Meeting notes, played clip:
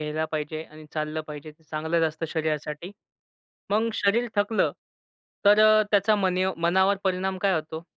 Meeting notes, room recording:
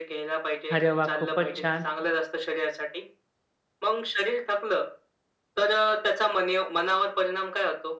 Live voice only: अरे वाह! खूपच छान

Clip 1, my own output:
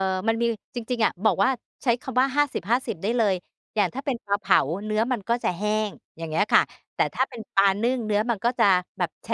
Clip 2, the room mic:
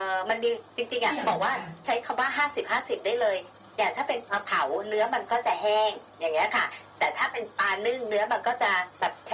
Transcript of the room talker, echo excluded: เยี่ยม ค่ะ

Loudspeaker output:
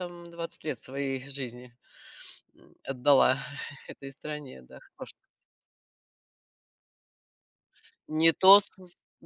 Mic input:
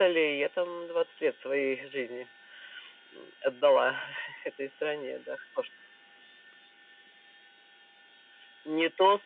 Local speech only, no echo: none

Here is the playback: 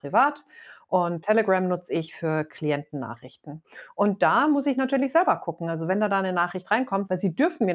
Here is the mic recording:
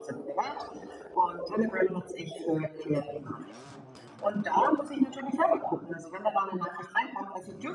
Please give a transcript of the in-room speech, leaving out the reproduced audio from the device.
none

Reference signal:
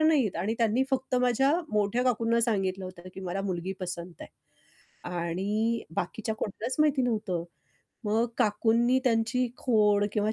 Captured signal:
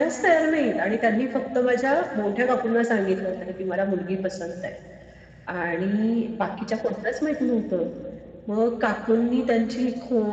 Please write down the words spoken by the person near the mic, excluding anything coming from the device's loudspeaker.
none

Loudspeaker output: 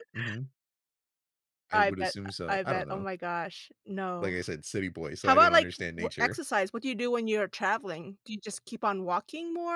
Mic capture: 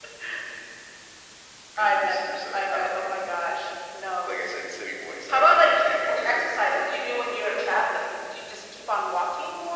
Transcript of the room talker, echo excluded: none

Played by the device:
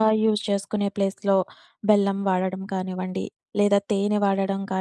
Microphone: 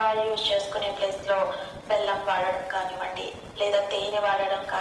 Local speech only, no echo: none

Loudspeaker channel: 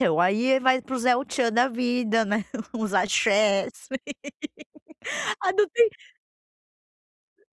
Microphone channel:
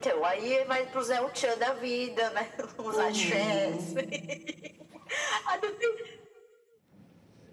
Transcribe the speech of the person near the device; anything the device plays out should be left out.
Uhum.

